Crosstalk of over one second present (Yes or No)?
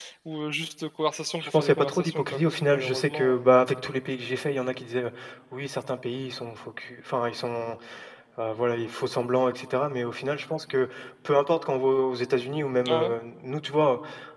Yes